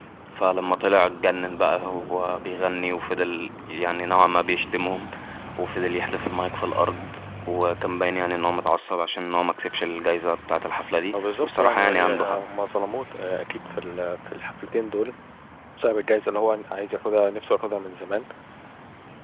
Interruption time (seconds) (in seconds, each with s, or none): 11.1 s